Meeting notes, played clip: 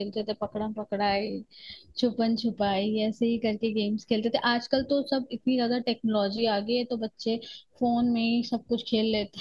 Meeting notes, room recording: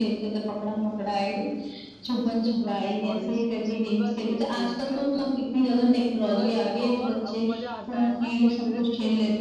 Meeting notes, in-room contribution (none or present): present